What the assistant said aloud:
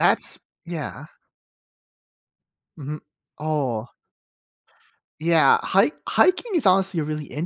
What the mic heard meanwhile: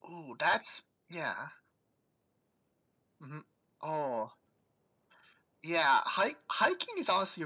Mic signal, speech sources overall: echo only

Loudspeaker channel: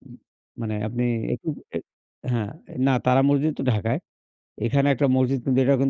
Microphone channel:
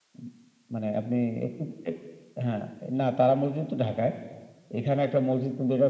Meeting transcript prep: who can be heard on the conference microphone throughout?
echo only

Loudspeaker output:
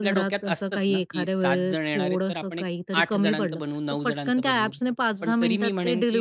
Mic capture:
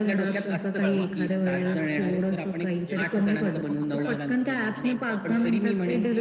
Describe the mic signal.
both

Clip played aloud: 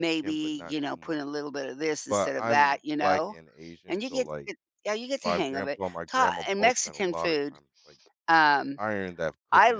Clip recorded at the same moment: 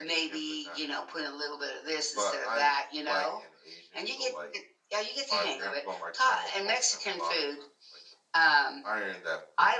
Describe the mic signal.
echo only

